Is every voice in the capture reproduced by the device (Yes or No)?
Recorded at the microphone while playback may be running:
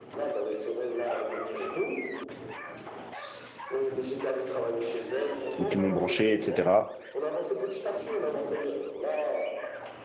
No